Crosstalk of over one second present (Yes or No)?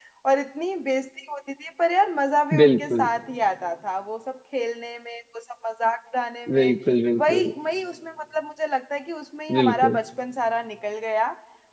No